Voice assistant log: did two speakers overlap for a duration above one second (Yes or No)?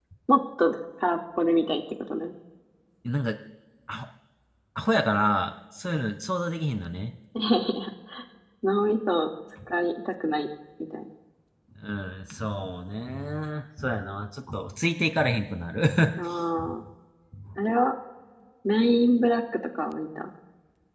No